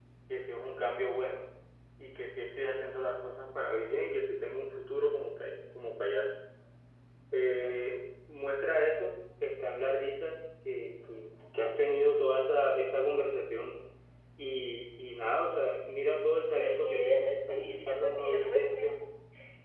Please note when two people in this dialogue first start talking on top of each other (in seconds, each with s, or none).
16.6 s